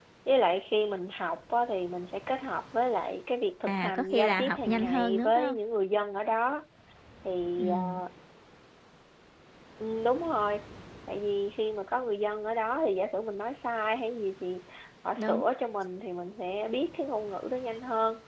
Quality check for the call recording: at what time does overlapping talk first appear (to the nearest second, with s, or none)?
4 s